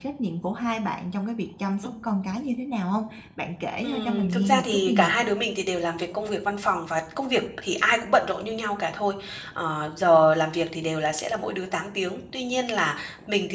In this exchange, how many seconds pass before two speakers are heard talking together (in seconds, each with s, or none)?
3.8 s